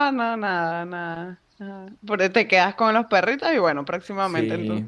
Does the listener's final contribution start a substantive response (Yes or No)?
Yes